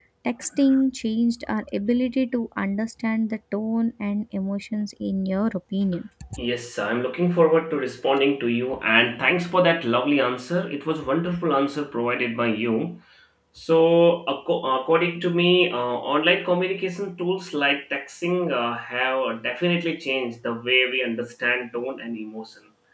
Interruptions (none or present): none